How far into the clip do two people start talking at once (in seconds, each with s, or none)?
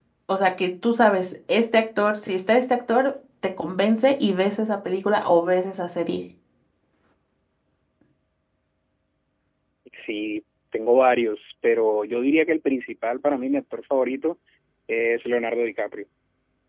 none